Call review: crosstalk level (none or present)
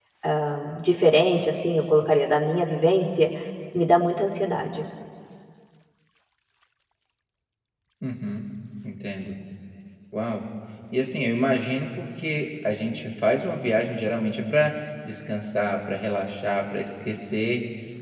none